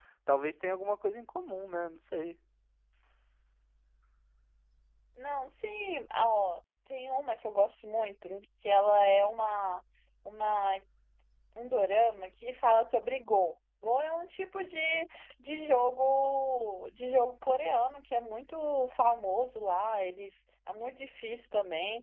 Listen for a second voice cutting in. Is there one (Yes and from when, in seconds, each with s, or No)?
No